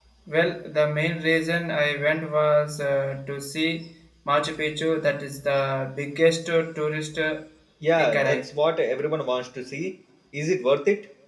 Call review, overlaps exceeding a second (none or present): none